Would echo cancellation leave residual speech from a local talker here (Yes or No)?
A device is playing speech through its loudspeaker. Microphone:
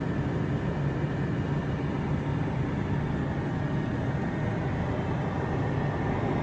No